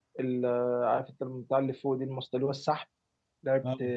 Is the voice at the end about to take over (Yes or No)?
No